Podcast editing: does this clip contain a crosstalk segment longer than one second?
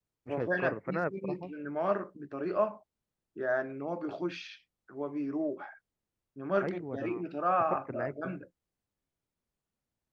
Yes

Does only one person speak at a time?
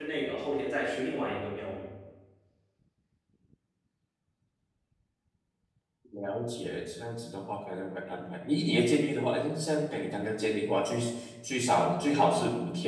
Yes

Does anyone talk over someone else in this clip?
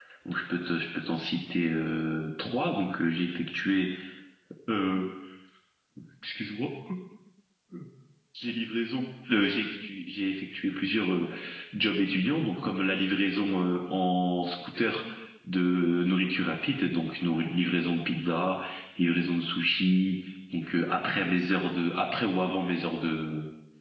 No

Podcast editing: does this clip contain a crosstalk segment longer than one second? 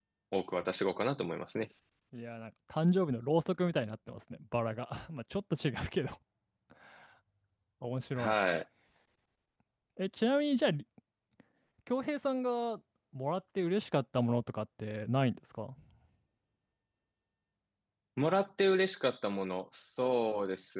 No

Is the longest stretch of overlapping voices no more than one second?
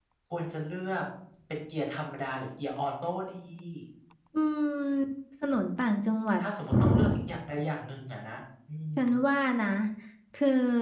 Yes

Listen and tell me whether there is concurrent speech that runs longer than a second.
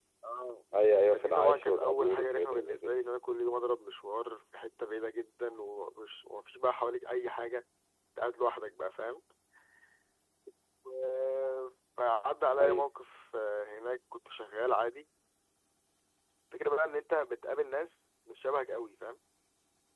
Yes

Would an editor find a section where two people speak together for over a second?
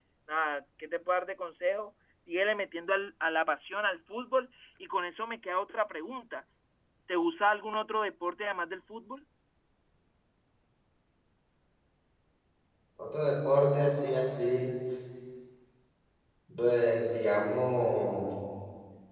No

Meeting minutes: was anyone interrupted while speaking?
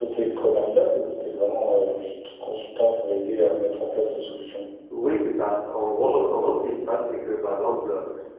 No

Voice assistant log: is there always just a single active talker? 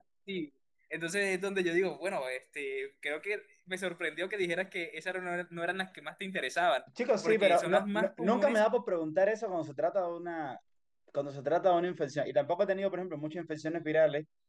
No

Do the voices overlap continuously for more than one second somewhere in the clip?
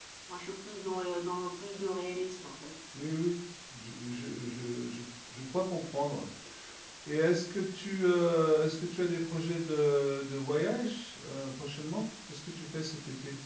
No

